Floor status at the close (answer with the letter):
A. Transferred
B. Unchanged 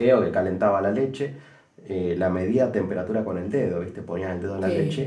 B